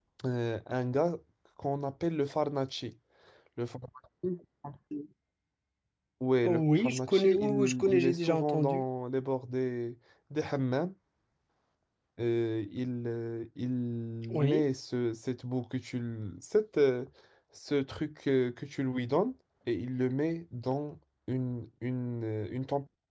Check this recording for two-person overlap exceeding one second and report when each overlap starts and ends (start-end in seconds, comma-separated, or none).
6.4-8.8